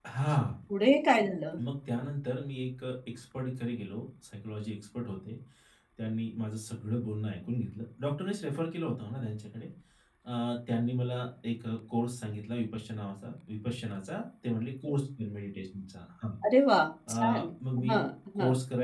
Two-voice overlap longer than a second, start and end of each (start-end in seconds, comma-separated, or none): none